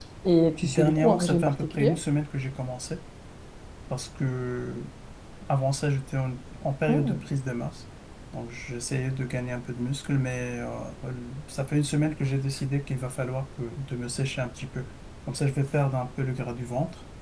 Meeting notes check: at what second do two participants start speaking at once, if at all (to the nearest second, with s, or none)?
1 s